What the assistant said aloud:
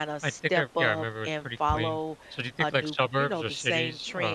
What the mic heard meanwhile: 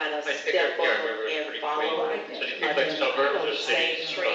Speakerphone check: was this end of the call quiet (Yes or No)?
No